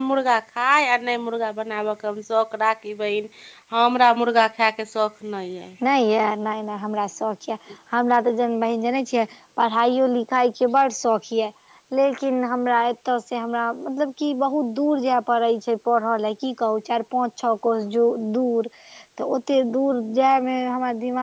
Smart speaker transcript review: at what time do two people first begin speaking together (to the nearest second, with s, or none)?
none